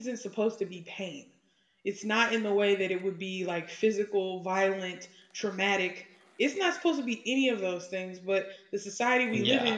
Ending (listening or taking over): listening